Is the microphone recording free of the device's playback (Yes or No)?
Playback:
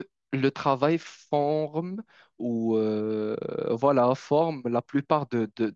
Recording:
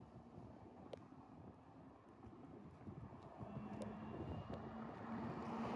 Yes